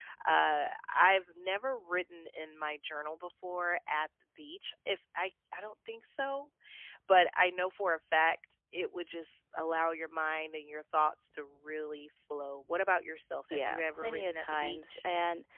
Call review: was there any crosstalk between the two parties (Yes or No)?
Yes